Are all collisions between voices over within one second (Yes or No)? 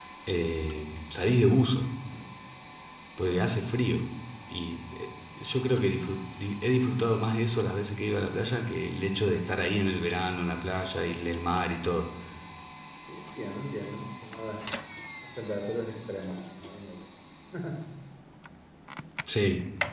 Yes